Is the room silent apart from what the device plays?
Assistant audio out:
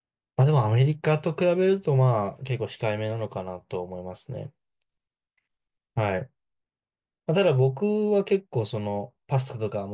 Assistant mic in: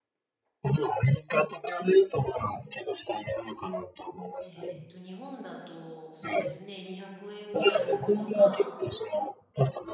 No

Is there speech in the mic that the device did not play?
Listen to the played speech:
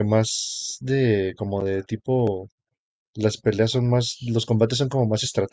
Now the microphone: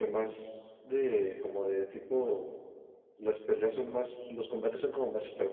No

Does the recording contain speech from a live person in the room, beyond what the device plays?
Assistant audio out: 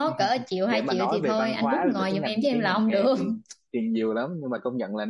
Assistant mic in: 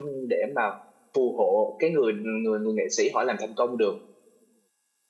Yes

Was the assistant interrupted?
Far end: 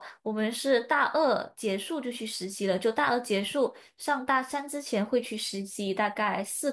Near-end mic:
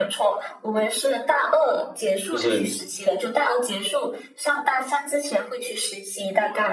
Yes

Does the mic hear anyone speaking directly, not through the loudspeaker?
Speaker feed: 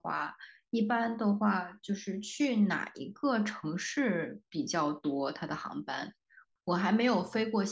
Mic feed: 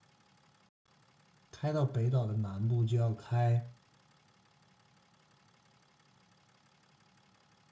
Yes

